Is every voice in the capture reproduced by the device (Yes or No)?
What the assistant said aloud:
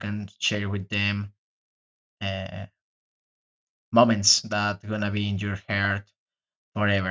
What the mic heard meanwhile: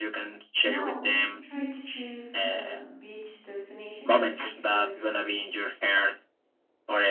No